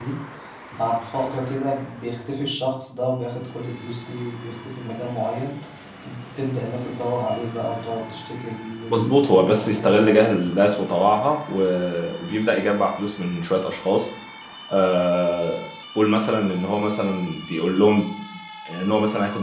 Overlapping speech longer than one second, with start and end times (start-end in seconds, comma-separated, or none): 8.9-10.4